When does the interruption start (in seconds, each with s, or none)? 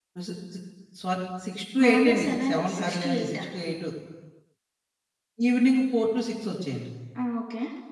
1.8 s